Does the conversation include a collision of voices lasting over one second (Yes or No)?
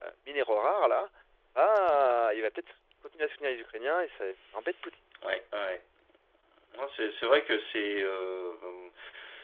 No